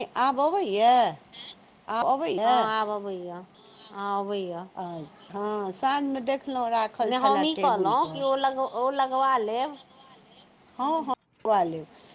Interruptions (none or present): present